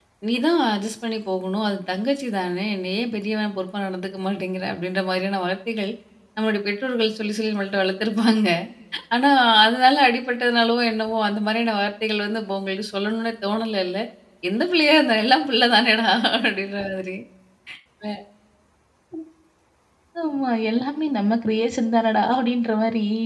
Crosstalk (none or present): none